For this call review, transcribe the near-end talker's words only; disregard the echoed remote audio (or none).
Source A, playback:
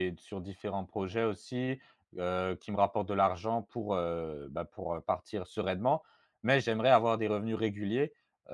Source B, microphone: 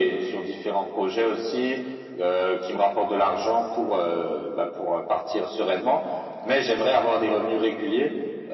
none